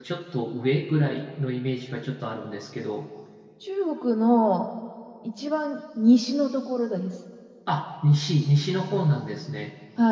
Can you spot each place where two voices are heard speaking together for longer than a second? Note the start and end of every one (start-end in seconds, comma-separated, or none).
none